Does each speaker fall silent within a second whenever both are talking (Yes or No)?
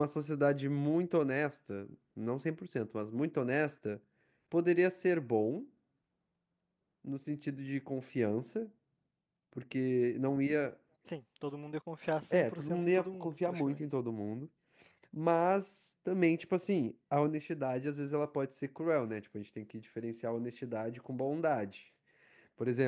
No